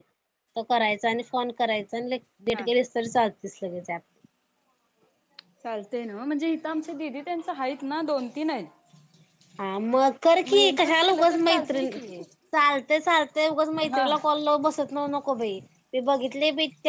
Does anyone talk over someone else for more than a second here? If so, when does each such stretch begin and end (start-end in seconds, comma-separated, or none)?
10.6-12.0